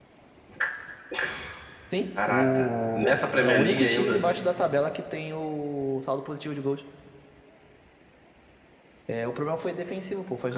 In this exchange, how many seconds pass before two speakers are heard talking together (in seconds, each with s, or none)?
2.2 s